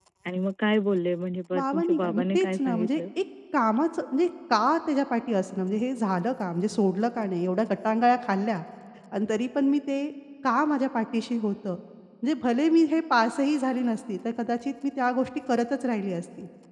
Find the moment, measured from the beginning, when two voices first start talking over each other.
1.5 s

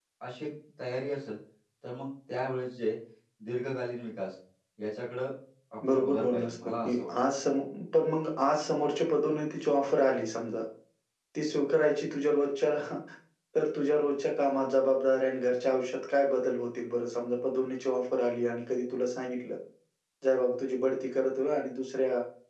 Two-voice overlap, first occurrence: 5.9 s

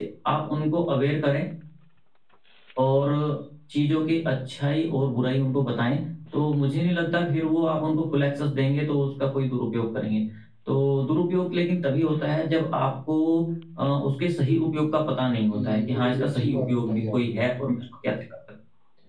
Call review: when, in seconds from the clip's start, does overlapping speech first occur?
15.5 s

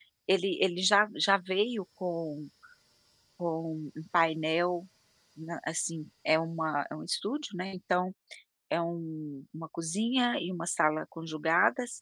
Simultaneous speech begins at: none

